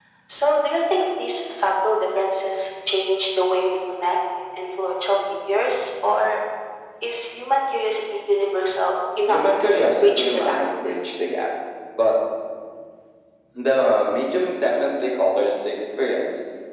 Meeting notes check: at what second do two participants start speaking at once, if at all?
9 s

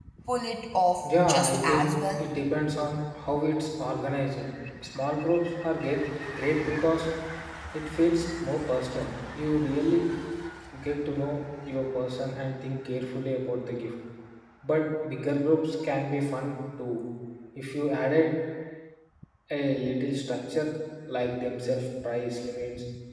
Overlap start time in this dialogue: 1 s

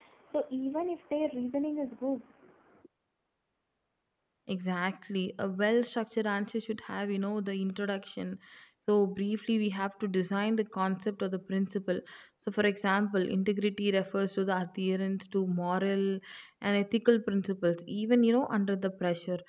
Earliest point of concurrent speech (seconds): none

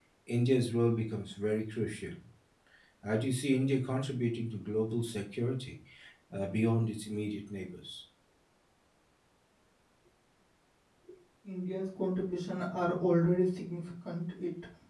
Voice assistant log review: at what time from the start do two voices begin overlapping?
none

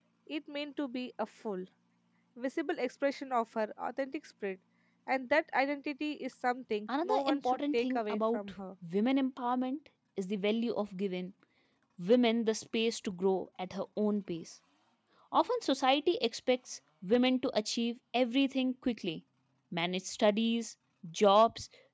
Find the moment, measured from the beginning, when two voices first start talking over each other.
7 s

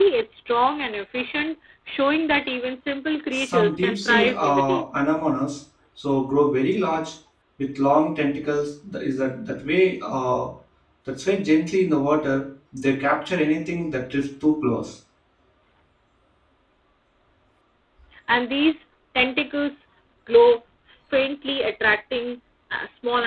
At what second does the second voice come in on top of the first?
3 s

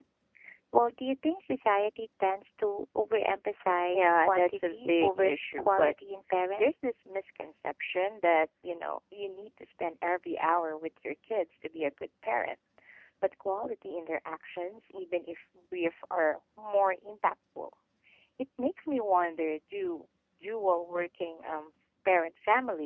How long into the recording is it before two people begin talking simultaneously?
4 s

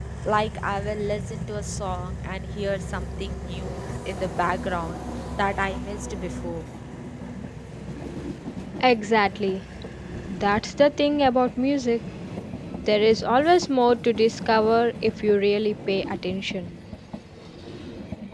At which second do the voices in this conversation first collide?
none

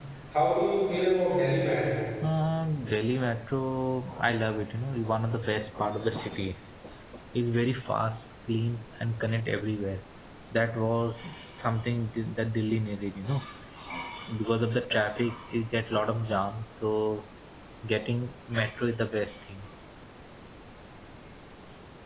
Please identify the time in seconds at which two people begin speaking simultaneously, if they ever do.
none

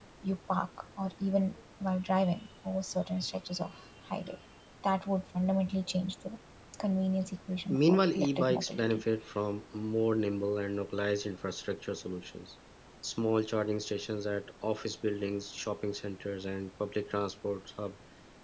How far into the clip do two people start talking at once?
8 s

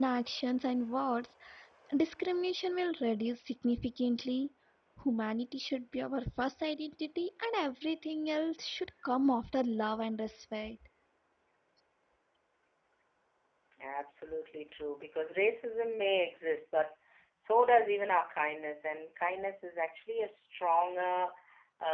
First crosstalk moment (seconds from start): none

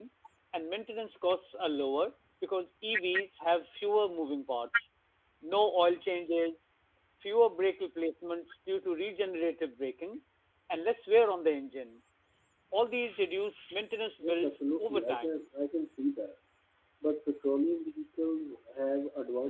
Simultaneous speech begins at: 14 s

